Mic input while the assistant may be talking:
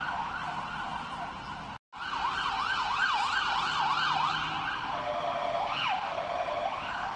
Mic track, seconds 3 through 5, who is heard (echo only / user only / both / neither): neither